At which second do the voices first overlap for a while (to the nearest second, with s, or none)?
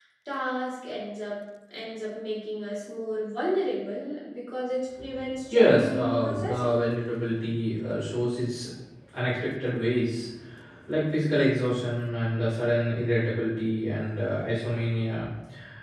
6 s